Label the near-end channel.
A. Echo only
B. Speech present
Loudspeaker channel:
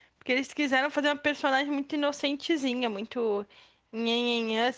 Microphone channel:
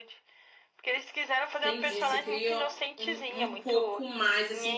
B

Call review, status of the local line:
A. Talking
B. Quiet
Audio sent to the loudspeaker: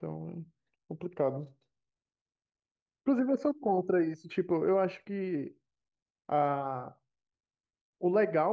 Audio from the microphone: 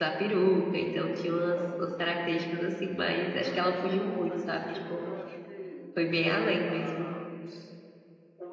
A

